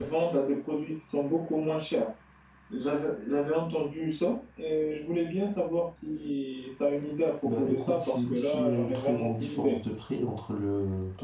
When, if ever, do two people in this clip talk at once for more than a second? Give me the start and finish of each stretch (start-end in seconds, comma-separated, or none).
7.5-9.8